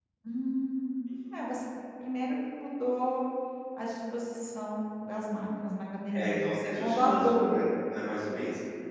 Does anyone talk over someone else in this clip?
Yes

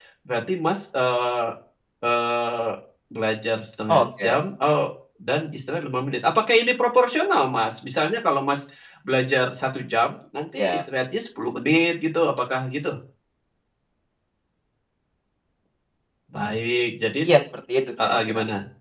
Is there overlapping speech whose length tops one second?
No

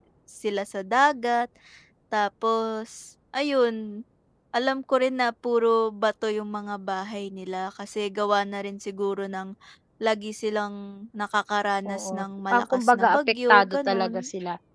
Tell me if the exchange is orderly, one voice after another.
No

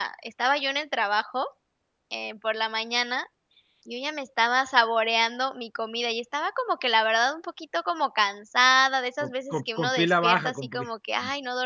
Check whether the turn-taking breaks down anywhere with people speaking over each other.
Yes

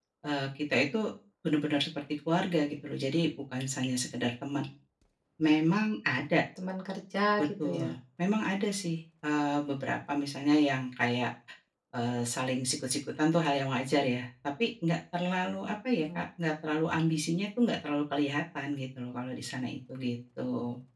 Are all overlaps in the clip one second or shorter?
Yes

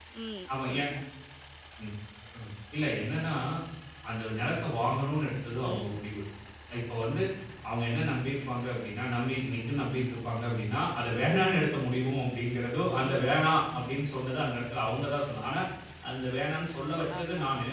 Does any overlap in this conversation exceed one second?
No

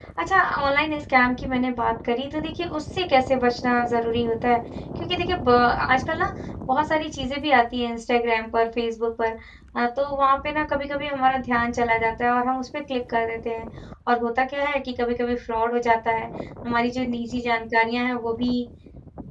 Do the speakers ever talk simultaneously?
No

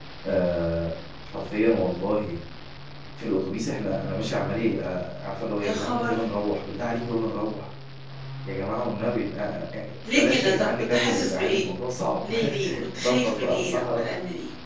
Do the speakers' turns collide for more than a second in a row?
Yes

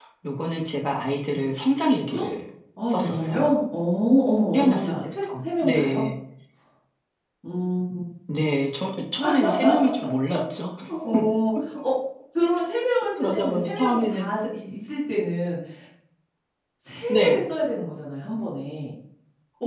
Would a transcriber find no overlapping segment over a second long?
No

